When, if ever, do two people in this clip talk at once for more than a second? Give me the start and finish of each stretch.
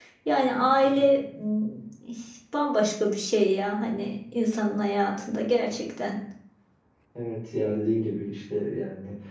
none

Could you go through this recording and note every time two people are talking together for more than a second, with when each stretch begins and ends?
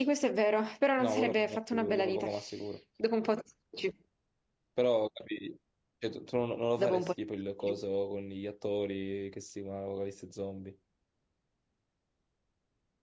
1.0-2.3

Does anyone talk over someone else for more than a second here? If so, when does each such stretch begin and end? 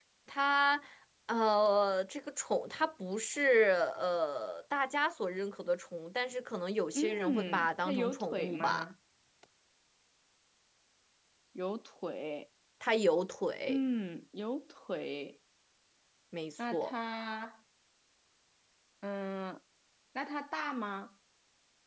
6.9-8.8

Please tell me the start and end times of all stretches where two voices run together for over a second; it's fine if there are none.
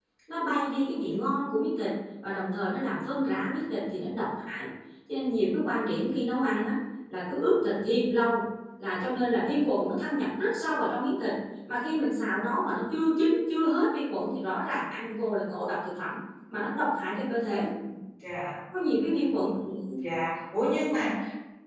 none

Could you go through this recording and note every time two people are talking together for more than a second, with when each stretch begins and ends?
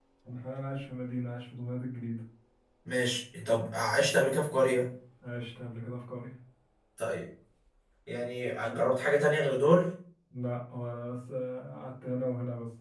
none

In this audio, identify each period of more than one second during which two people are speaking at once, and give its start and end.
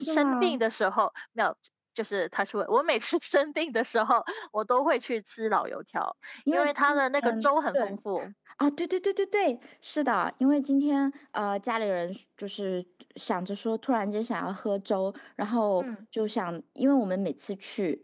6.5-8.0

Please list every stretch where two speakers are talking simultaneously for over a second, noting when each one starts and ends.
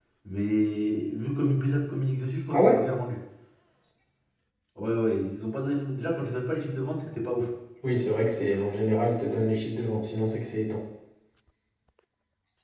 none

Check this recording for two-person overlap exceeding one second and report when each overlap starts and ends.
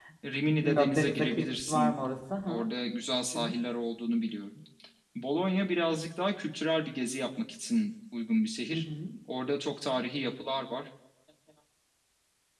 0.6-2.0

